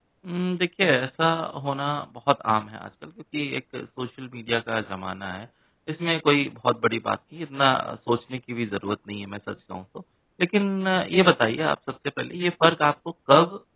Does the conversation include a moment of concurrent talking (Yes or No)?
No